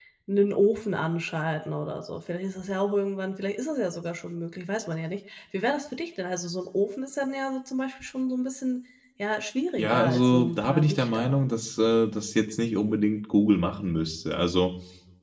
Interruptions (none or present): present